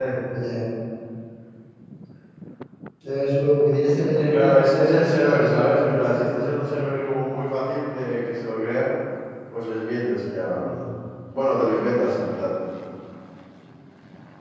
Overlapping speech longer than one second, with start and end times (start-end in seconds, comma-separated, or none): 4.3-6.9